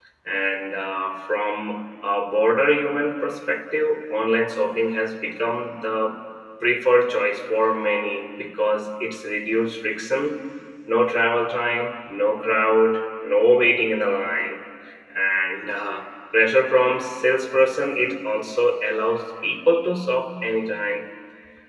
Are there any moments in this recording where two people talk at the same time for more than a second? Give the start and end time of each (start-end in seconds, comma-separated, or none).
none